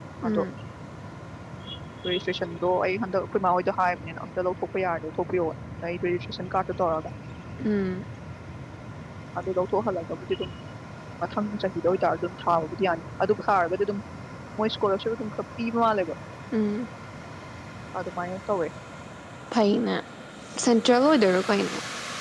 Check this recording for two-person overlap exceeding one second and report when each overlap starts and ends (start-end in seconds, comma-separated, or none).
none